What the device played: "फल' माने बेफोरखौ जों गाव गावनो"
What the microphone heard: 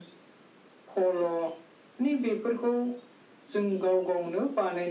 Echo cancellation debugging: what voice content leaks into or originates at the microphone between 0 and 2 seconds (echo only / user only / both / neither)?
echo only